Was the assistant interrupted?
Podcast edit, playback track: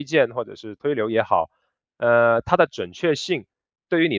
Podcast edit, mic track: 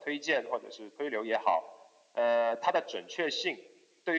No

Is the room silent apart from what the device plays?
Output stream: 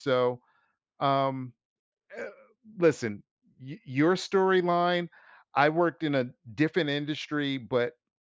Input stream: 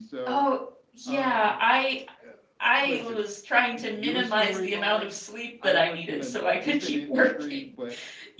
No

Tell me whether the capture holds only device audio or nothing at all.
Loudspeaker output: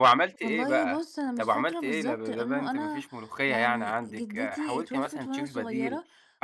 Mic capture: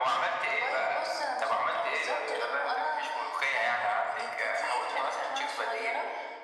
Yes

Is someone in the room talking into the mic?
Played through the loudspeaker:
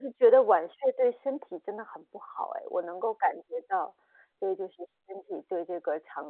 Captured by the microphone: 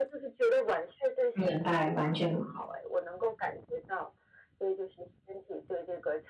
Yes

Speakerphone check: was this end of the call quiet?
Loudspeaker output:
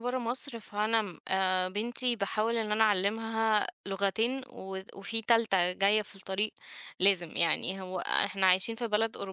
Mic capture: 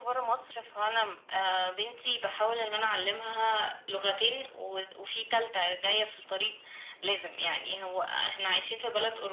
Yes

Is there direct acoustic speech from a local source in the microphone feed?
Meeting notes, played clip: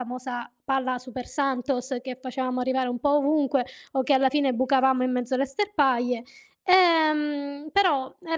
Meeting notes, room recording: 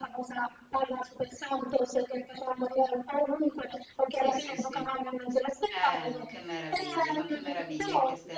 Yes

